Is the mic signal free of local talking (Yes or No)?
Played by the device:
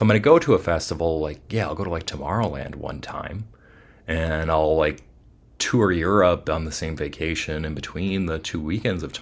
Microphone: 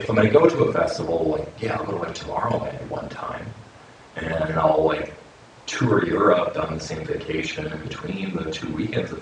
Yes